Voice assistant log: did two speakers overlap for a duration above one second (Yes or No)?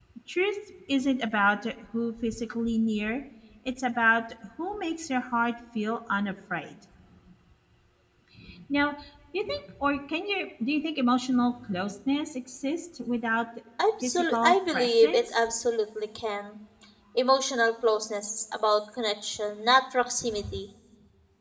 Yes